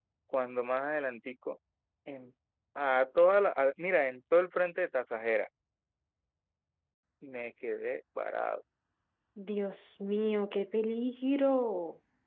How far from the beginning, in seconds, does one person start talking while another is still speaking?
none

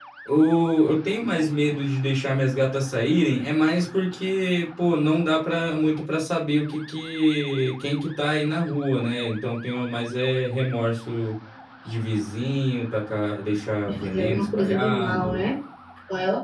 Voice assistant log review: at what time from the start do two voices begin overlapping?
13.9 s

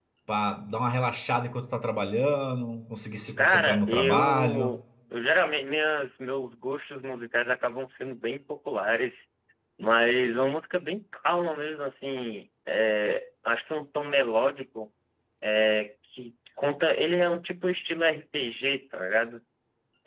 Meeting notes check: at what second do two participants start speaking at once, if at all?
3.4 s

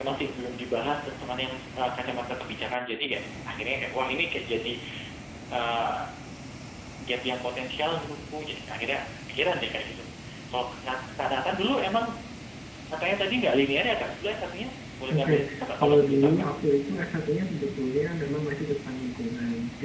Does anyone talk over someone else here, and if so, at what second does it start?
15.1 s

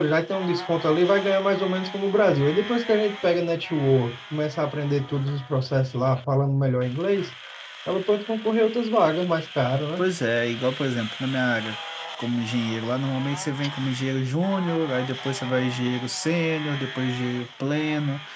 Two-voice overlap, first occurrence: none

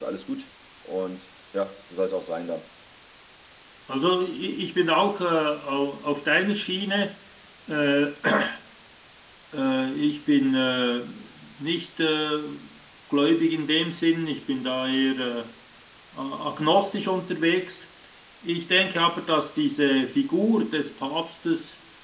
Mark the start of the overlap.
none

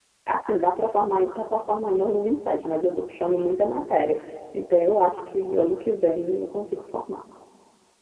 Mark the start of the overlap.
none

